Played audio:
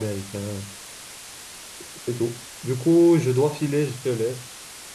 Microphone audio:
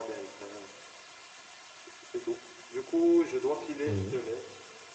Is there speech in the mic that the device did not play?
Yes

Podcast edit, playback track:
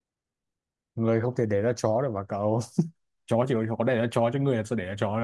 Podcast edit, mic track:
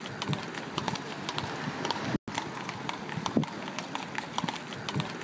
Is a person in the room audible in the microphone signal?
No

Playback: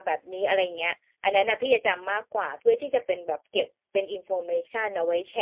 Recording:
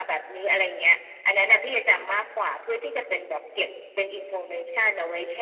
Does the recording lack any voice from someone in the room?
Yes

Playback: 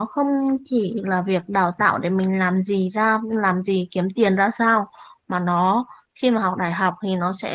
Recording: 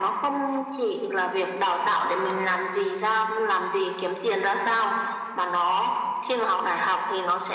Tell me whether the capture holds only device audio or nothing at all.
Yes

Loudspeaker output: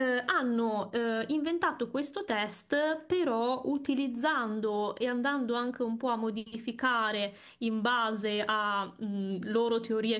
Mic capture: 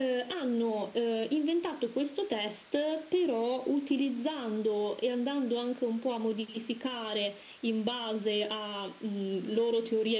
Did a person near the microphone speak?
No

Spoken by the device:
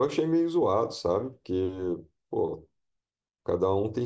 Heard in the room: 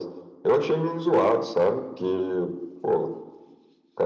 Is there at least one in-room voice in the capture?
No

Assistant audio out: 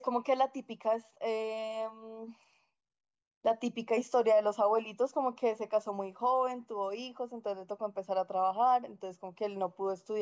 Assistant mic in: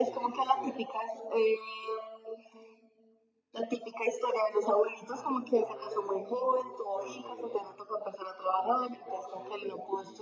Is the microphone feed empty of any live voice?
No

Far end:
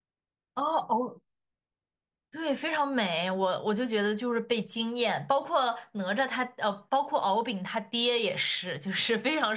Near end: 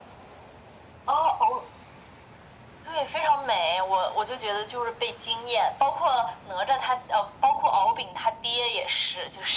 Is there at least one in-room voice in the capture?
No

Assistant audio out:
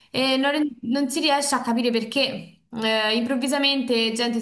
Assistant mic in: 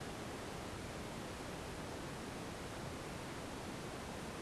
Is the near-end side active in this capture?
No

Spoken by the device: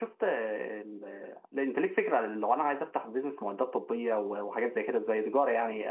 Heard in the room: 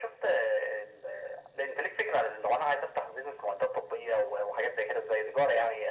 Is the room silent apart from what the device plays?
Yes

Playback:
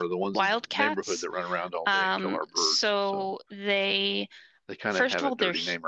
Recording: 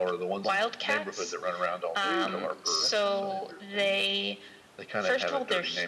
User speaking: Yes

